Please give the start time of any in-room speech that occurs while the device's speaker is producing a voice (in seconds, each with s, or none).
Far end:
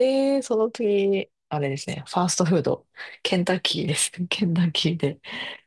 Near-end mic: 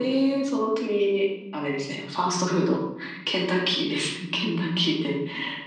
none